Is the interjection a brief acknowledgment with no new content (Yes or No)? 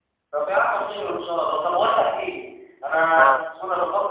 Yes